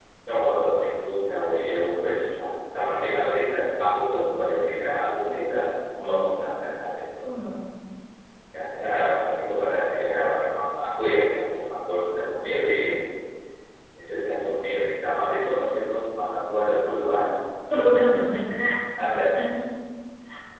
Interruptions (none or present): none